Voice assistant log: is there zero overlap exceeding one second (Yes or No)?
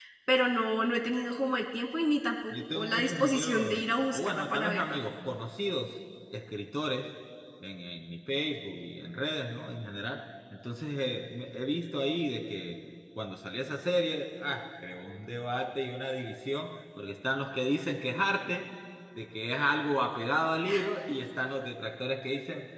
No